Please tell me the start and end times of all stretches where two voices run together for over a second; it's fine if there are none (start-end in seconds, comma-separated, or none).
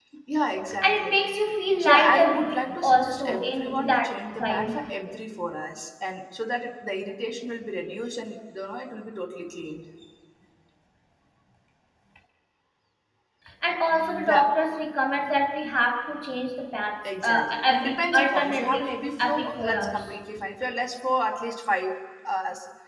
1.8-4.0, 17.0-20.0